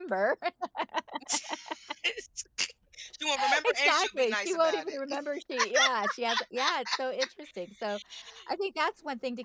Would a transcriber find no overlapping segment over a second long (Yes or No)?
No